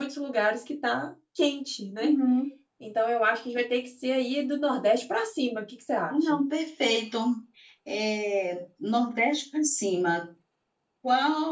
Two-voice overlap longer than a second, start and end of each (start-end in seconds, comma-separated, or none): none